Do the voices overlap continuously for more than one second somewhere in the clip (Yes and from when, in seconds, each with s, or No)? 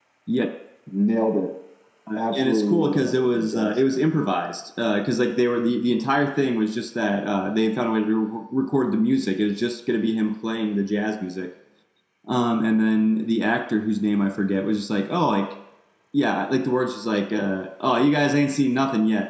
Yes, from 2.2 s